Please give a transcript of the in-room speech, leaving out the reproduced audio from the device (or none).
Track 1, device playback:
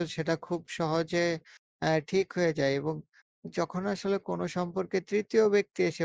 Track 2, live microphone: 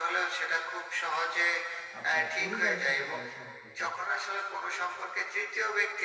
আপনার পরিবারের সাথে কারো সম্পর্ক,